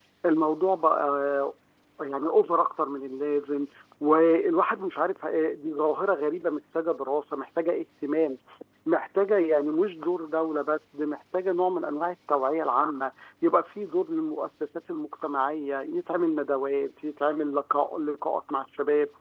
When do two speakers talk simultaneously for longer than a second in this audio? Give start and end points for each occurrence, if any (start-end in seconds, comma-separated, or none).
none